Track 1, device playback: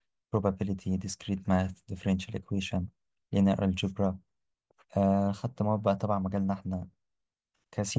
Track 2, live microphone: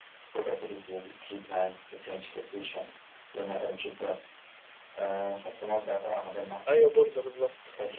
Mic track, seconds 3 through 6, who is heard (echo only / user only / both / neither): echo only